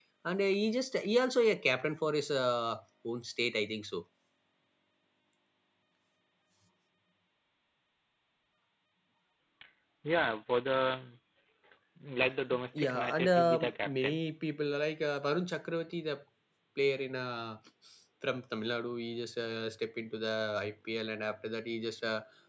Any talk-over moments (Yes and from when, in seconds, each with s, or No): Yes, from 12.8 s